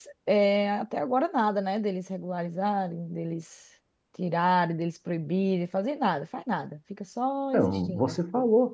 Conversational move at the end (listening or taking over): taking over